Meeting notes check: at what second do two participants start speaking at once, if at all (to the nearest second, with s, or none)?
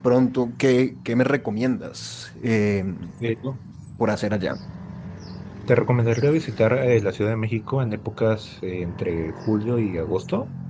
none